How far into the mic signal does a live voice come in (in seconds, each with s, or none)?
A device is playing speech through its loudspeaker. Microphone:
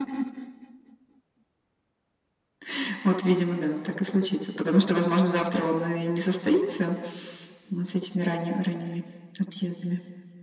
none